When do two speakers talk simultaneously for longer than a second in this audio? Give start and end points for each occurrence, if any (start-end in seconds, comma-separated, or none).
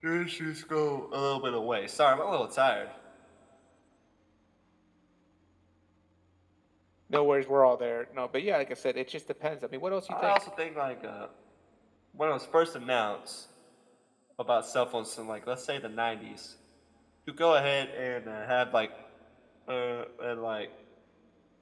none